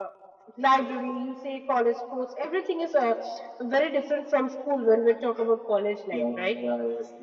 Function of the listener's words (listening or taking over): taking over